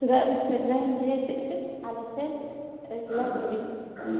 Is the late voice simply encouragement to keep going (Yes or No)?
No